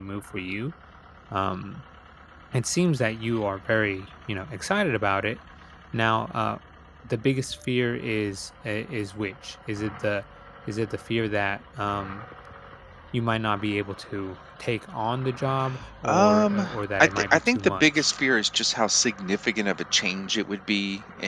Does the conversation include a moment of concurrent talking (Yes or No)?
Yes